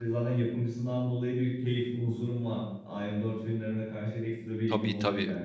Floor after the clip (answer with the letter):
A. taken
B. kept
A